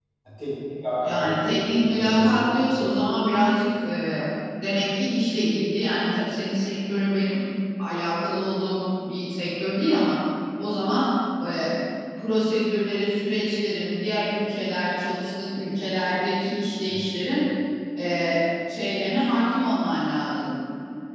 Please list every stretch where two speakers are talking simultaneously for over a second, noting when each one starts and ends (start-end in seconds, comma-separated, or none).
1.0-2.6